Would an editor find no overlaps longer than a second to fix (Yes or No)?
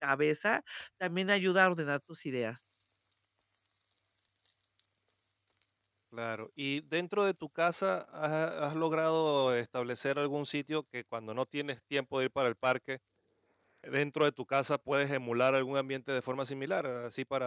Yes